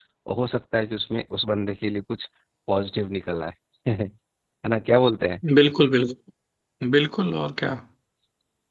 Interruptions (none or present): none